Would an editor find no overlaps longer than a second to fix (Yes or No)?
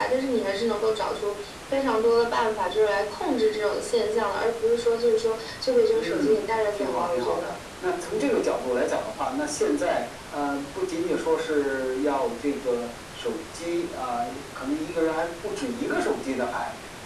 No